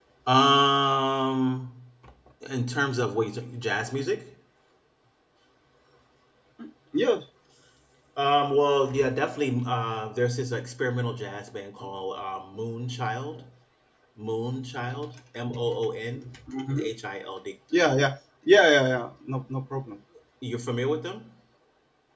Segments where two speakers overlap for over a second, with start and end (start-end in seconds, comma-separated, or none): none